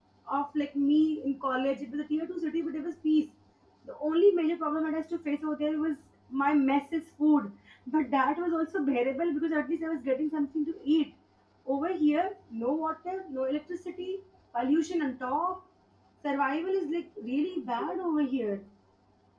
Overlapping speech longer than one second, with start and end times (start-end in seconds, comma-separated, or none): none